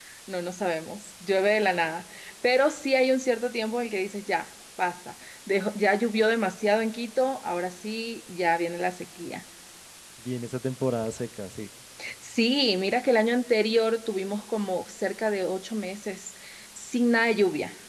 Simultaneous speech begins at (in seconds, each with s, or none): none